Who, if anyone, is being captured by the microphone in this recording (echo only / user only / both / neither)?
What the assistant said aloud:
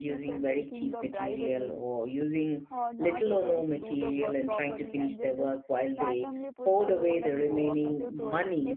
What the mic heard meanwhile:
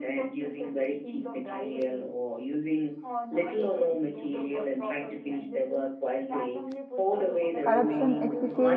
both